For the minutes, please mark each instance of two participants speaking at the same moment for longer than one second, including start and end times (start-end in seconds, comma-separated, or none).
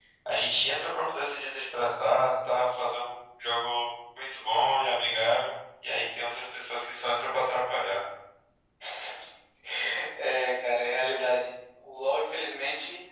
none